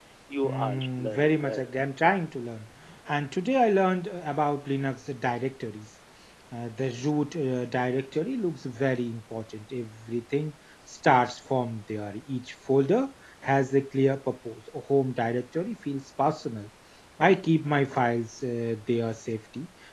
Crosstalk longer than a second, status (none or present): present